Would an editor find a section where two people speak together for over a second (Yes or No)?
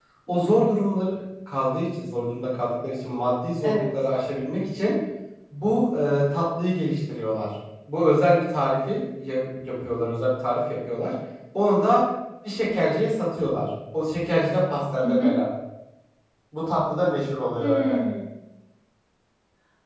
No